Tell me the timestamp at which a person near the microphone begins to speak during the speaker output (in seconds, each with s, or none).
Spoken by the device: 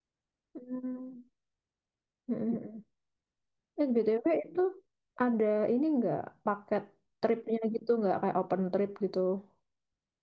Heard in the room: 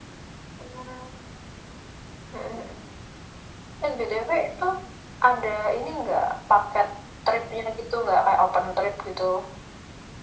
none